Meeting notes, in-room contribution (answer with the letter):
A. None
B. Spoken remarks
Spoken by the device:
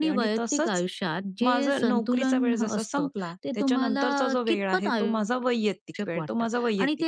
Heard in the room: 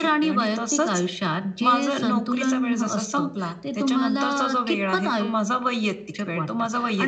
A